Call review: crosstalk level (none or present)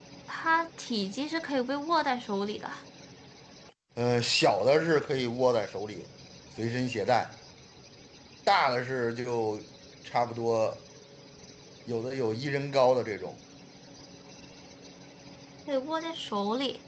none